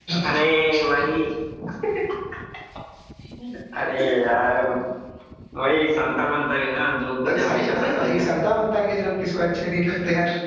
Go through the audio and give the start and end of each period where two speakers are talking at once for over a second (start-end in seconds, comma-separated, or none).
7.2-8.4